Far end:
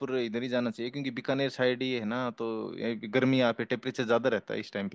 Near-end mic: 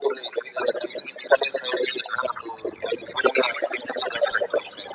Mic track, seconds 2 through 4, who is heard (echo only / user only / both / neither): echo only